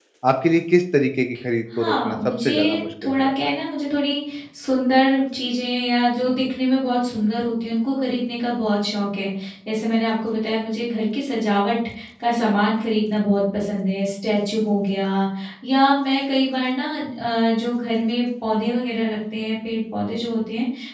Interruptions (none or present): present